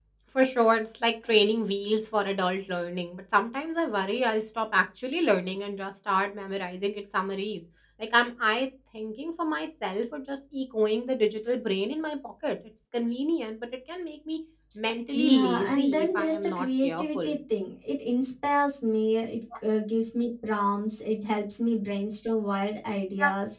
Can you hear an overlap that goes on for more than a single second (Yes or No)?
Yes